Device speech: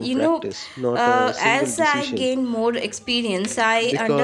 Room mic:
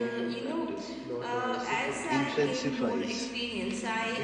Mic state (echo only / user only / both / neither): both